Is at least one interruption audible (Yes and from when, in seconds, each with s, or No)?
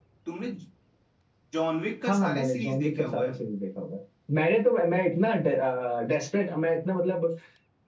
Yes, from 2.1 s